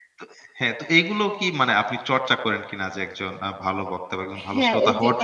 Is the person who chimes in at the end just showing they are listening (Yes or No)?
No